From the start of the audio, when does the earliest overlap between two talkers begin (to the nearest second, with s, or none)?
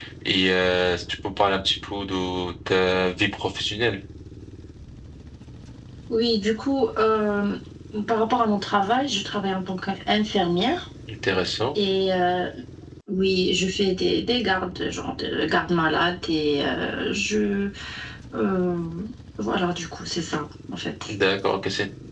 none